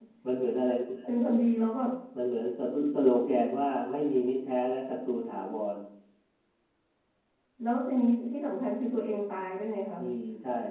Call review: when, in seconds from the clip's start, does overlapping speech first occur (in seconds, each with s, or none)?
none